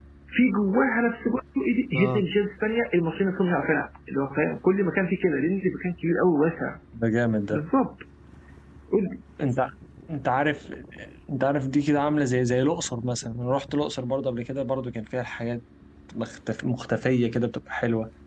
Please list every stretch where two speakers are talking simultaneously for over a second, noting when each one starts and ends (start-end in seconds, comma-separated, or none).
none